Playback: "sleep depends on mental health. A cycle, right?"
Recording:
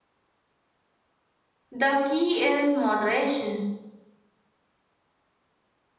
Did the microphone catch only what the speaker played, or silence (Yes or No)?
No